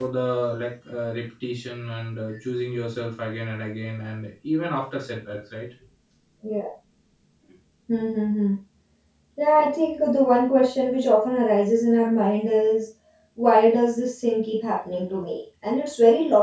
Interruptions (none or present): none